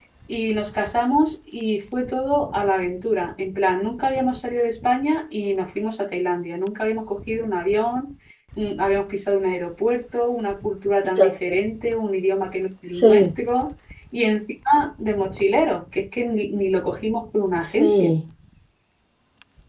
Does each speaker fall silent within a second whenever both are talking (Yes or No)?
Yes